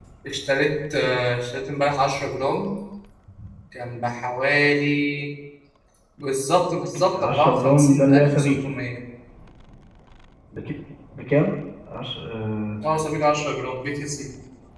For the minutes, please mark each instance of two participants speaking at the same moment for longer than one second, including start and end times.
7.1-8.6

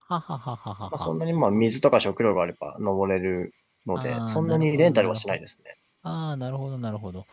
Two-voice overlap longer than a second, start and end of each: 4.0-5.2

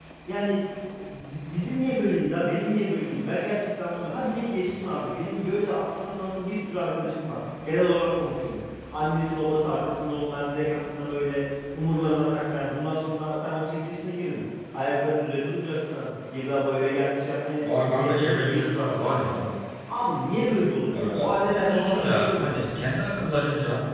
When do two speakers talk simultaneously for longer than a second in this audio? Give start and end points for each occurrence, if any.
17.6-19.5, 20.9-22.8

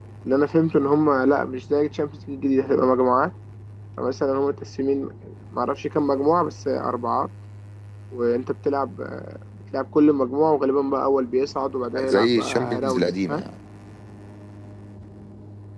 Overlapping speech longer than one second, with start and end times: 12.0-13.4

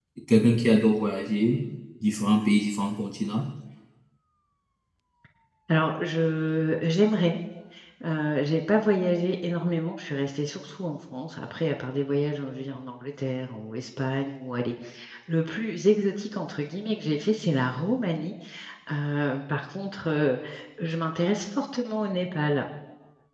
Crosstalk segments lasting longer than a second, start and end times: none

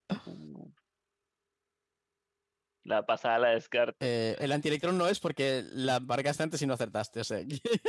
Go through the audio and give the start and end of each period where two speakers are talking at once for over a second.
none

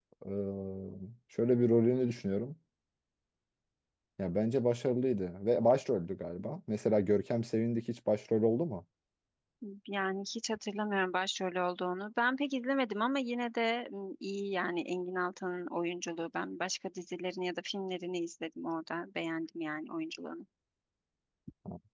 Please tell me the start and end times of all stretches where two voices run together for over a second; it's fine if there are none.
none

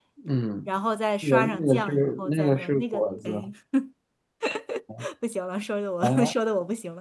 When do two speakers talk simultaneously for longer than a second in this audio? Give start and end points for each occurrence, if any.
1.2-3.3

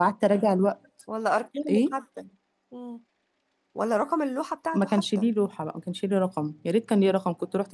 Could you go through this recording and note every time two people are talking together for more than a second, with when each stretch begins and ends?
none

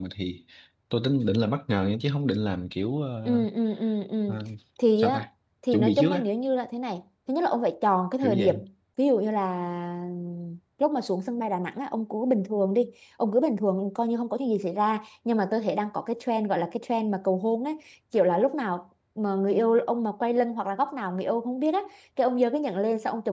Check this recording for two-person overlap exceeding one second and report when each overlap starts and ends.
none

